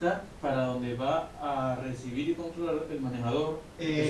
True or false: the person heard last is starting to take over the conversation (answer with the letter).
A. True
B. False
A